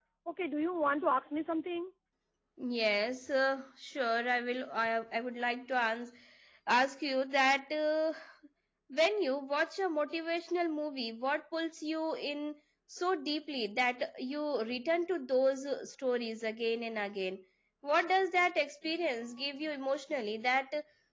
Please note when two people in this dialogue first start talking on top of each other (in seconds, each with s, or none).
none